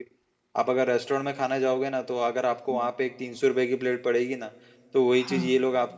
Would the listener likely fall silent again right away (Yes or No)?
Yes